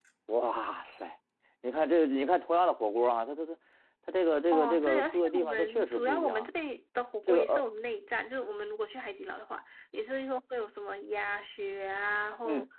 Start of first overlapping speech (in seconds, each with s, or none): 4.5 s